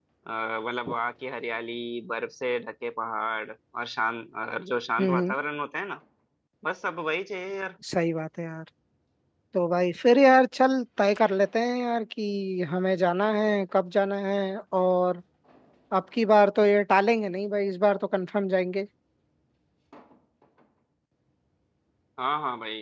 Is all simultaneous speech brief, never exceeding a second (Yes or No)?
Yes